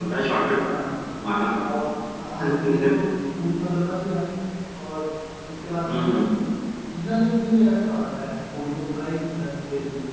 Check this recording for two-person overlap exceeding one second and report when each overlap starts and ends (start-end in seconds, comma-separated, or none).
none